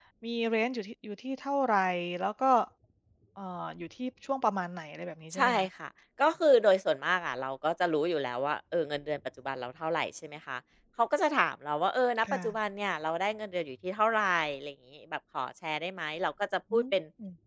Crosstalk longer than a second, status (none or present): none